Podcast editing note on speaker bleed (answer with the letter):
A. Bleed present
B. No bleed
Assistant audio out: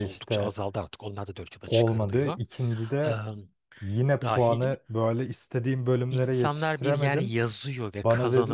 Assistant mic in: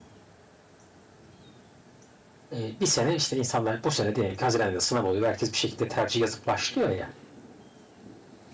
B